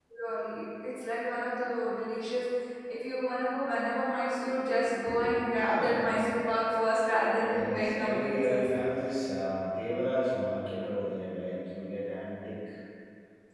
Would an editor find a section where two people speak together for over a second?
Yes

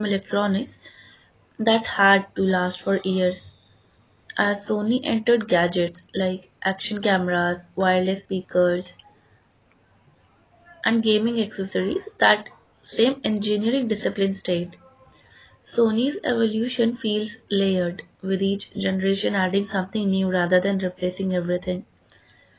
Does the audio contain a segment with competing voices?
No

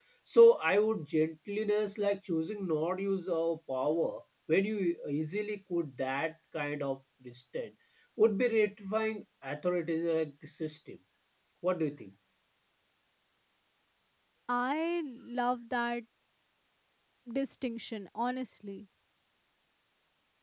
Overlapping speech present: No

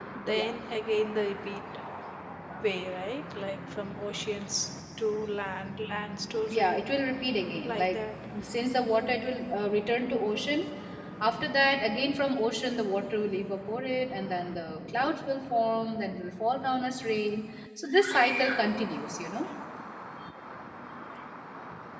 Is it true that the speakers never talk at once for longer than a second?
Yes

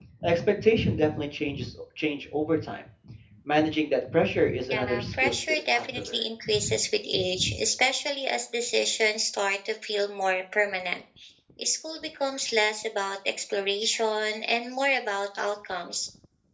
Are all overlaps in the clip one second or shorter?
No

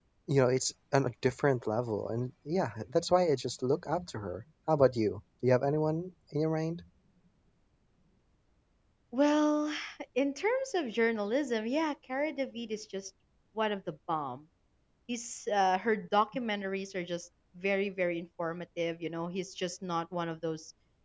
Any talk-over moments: No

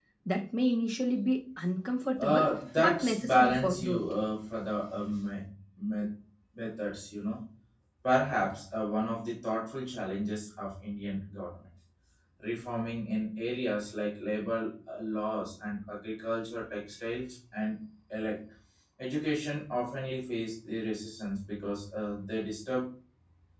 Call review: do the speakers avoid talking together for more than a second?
No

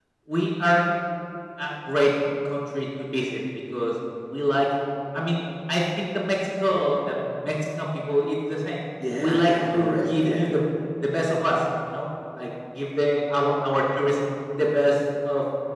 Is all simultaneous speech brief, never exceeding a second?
No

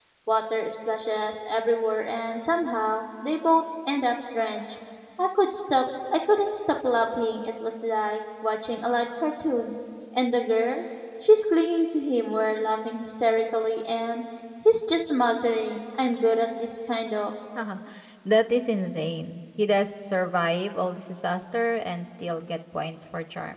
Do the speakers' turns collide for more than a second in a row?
No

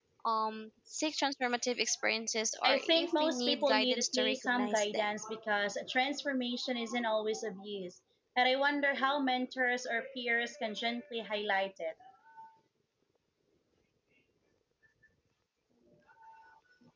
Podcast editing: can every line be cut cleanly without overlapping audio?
No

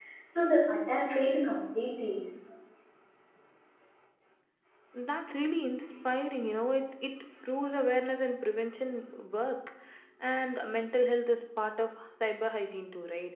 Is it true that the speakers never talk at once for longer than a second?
Yes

